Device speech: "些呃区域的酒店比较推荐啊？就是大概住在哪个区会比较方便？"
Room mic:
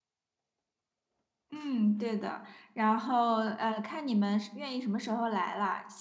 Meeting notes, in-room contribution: present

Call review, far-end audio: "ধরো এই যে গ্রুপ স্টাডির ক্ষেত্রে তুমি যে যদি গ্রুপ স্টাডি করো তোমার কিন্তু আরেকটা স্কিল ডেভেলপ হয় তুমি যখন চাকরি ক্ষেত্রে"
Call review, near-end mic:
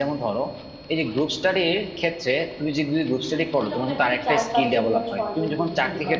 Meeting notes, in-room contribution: present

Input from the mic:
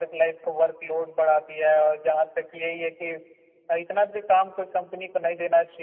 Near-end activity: none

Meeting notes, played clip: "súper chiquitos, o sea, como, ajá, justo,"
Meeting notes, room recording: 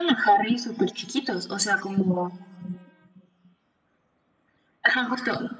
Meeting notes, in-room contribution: none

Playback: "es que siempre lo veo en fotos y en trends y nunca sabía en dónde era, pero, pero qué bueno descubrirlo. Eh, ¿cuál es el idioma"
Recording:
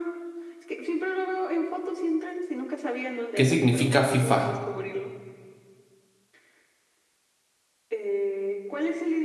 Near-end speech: present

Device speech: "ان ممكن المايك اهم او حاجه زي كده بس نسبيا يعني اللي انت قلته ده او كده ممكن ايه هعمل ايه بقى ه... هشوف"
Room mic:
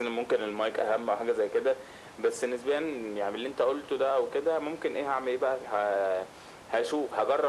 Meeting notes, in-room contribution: none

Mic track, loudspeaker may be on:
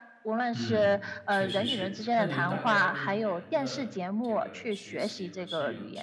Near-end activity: present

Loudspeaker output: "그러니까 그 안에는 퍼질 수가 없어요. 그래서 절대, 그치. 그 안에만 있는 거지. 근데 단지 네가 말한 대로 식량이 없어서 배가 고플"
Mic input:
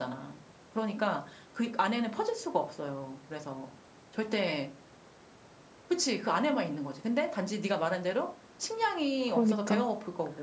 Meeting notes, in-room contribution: present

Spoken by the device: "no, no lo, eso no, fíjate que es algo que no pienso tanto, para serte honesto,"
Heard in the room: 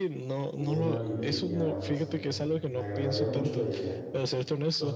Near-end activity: present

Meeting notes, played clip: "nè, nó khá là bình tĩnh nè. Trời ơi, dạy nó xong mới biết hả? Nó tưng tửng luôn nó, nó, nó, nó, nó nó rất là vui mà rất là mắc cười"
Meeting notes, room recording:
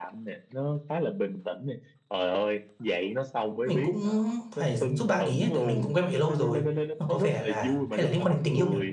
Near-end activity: present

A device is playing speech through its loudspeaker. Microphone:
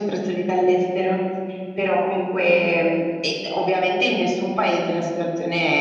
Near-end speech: none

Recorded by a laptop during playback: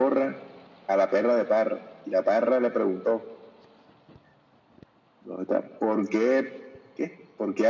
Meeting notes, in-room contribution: none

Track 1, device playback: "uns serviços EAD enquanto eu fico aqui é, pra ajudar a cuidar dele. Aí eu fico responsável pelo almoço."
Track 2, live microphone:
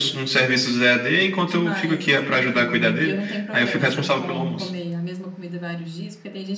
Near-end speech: present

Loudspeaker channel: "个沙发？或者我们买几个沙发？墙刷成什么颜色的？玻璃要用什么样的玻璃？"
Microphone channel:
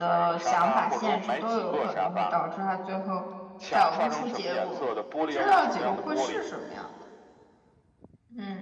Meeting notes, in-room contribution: present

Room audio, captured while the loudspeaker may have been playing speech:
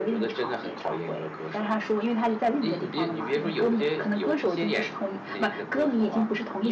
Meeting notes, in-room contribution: none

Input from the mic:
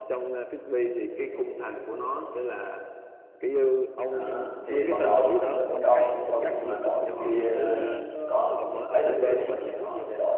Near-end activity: present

